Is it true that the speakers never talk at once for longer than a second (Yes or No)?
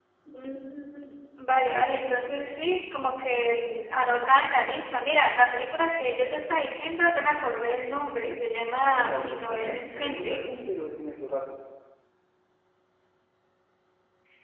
No